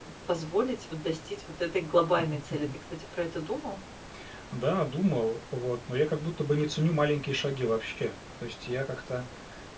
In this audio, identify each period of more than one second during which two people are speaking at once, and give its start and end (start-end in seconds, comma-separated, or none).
none